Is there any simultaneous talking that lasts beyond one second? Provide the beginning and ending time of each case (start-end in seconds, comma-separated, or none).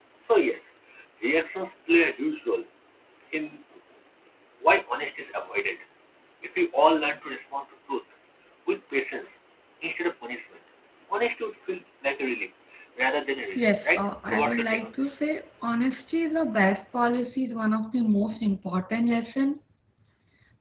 13.6-15.1